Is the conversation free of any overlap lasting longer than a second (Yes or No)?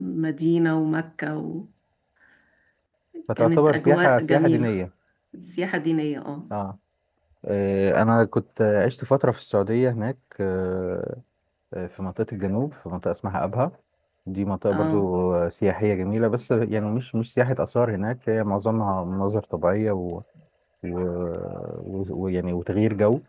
No